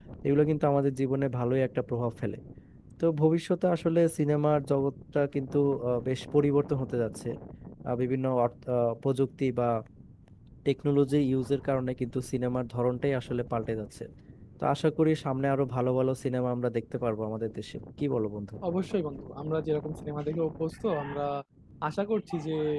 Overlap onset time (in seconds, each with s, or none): none